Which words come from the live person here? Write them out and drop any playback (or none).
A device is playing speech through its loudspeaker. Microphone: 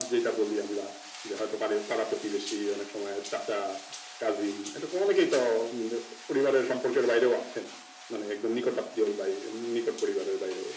none